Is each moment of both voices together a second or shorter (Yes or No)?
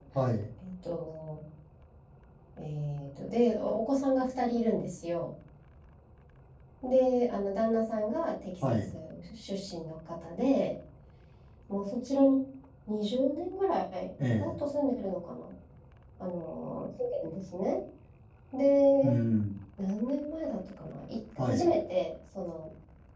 Yes